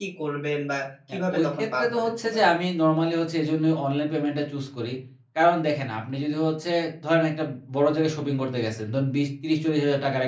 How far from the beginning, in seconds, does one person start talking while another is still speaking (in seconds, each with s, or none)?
1.1 s